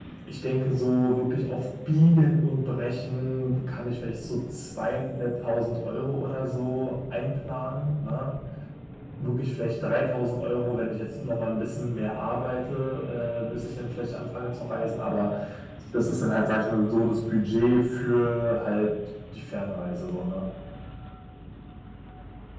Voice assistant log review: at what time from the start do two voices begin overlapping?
none

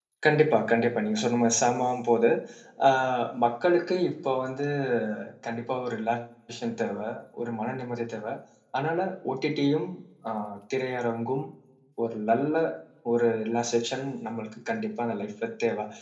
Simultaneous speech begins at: none

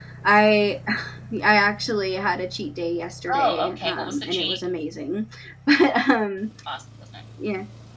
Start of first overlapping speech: 3.3 s

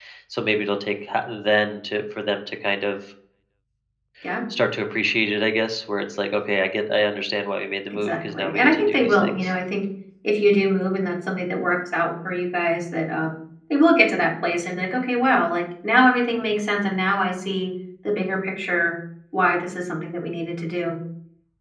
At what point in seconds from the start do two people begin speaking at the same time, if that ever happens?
8.0 s

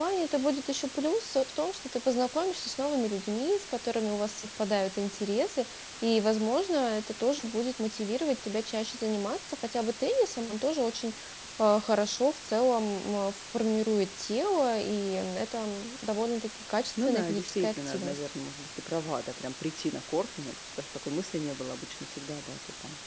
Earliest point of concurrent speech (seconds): 17.0 s

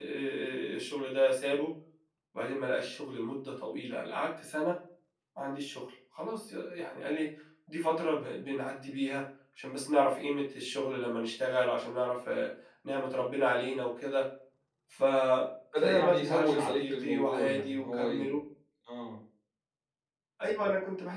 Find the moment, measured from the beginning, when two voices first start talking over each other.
15.8 s

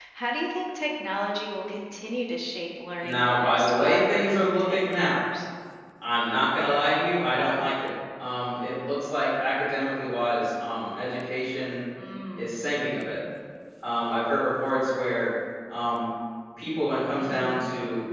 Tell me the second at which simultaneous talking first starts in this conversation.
3.0 s

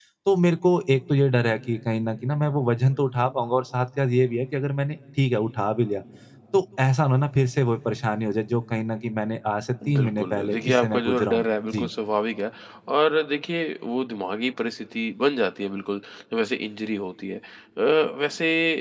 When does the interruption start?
9.8 s

